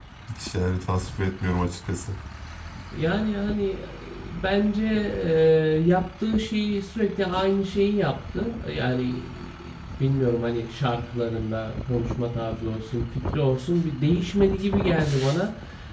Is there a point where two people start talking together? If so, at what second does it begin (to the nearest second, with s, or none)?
none